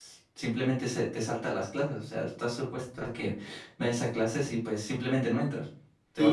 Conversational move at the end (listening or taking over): taking over